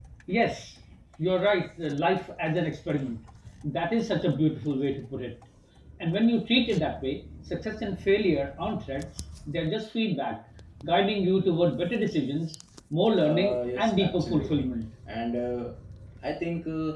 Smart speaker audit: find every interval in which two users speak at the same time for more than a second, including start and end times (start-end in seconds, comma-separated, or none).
13.2-14.6